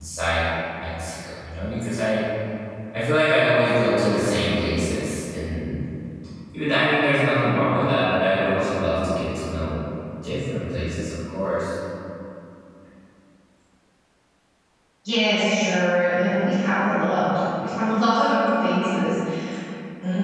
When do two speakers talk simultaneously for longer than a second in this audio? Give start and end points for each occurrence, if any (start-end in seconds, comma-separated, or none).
none